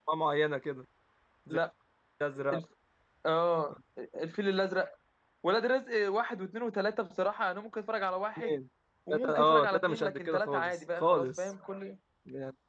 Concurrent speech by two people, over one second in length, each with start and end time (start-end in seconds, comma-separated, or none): 9.1-11.5